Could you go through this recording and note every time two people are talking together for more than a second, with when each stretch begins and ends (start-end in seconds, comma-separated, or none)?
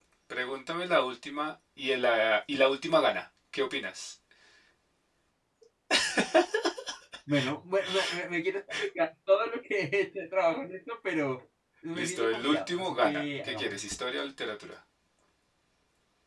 11.9-13.8